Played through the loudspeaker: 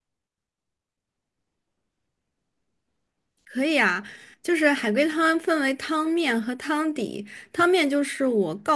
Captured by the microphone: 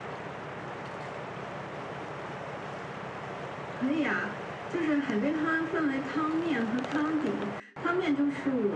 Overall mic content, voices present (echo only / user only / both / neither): echo only